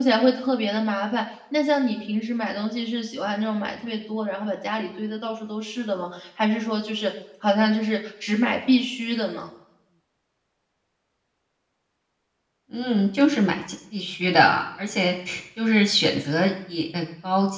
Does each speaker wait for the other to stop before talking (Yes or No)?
Yes